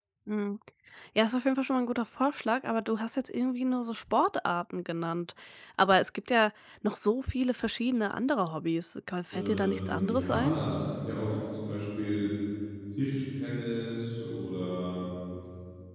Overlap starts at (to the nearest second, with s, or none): 9 s